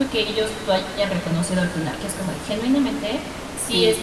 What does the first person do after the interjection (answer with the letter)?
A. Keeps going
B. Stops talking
A